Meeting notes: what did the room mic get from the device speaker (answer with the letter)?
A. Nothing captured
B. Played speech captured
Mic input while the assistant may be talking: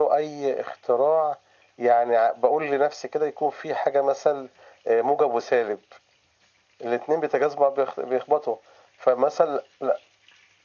B